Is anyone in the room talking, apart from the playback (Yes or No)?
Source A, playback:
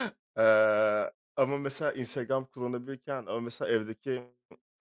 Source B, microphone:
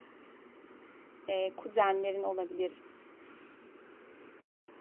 Yes